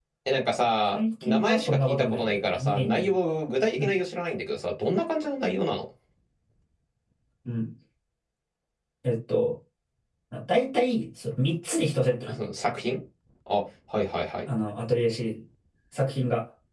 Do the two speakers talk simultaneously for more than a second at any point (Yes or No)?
Yes